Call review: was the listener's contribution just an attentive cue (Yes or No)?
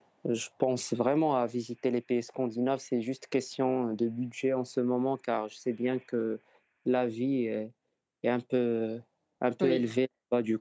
Yes